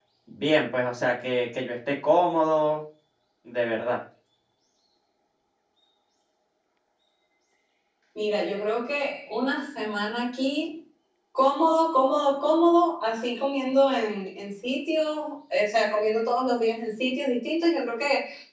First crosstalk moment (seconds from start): none

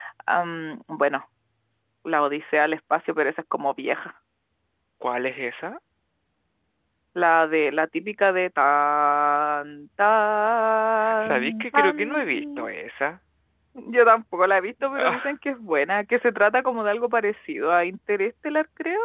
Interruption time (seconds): 11.2 s

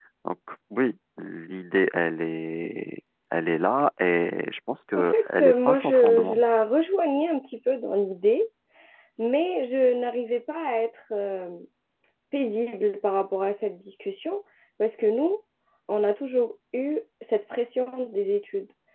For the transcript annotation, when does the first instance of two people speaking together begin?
4.9 s

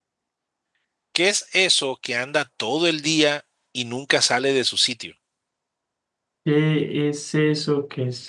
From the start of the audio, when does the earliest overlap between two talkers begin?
none

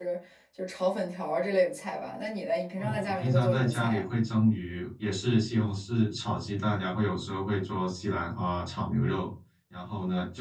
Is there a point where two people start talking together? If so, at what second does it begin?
2.8 s

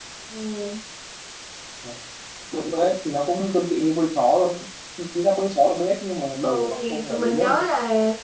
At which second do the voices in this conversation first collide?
6.4 s

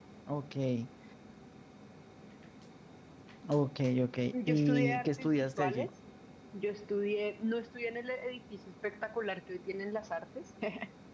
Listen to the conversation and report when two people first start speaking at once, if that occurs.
4.3 s

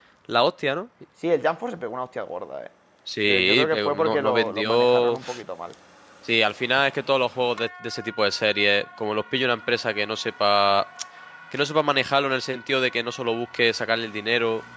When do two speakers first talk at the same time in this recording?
3.3 s

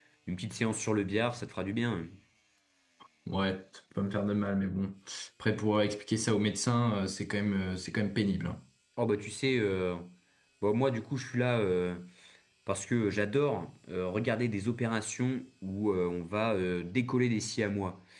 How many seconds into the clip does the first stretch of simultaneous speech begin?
none

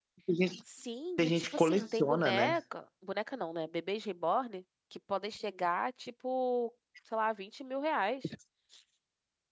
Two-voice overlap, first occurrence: 1.2 s

